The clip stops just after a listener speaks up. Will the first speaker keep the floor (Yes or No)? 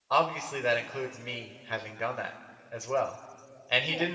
Yes